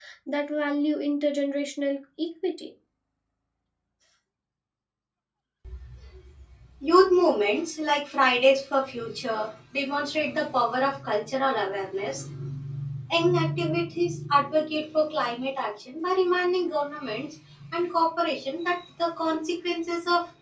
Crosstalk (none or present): none